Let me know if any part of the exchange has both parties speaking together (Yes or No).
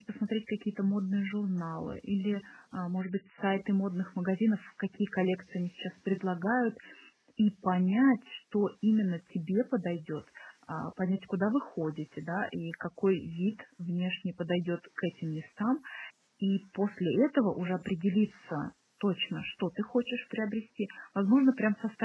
No